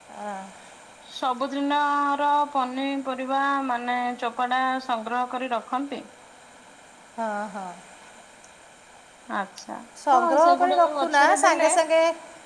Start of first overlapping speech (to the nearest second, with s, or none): 10 s